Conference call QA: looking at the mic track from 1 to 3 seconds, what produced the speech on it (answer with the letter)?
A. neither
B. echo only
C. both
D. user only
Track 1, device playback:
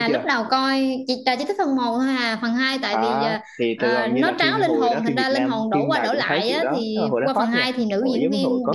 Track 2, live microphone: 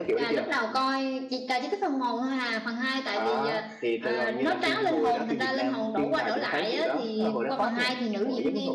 B